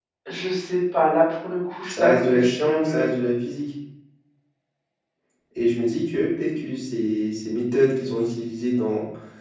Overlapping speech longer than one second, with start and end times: 1.8-3.0

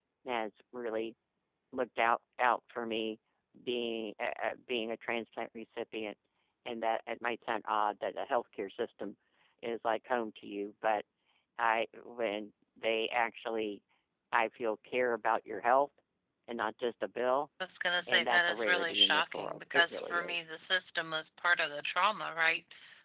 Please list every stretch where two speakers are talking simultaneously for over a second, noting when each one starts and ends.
18.1-20.4

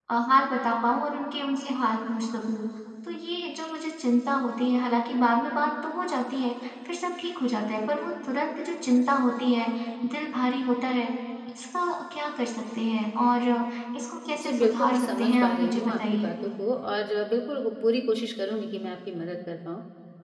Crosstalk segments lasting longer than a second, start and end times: 14.4-16.3

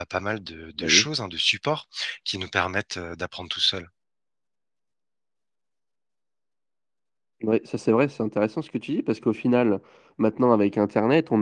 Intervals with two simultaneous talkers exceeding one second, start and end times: none

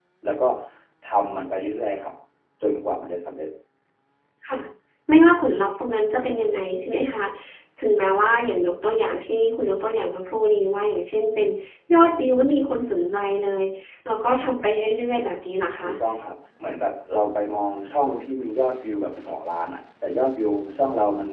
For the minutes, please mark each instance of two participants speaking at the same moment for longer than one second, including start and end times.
none

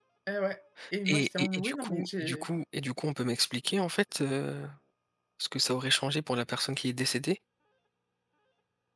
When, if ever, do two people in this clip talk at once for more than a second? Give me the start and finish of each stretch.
1.1-2.5

